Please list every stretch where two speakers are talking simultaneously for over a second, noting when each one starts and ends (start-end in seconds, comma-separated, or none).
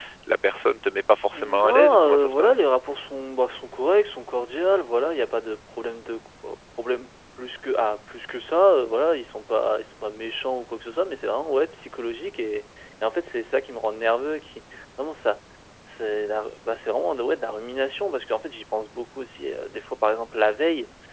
1.4-2.6